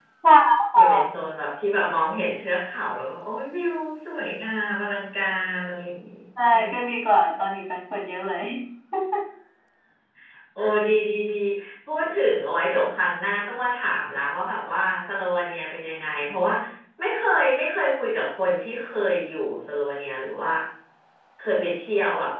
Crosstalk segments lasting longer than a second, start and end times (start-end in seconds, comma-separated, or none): none